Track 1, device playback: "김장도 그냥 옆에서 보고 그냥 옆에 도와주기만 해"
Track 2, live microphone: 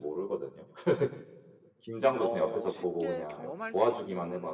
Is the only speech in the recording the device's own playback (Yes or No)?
No